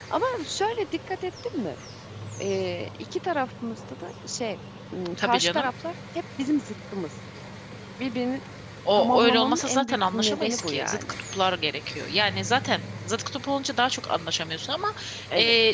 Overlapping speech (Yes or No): Yes